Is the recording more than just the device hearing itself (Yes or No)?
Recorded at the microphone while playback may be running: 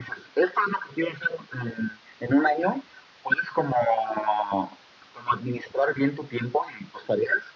No